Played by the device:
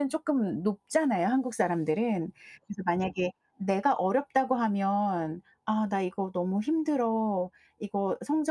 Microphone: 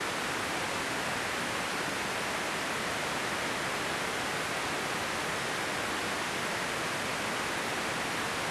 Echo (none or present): none